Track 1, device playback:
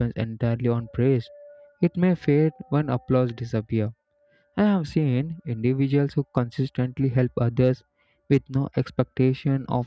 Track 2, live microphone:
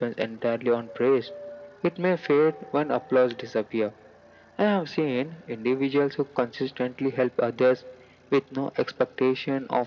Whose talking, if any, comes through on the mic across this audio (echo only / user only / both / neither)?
echo only